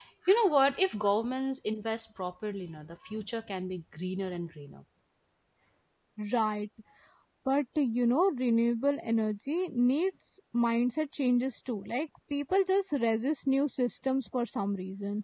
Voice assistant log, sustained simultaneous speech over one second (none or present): none